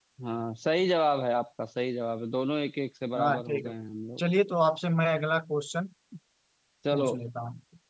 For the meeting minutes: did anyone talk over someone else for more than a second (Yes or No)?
No